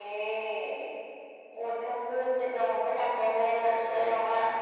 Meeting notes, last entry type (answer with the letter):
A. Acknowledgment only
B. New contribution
A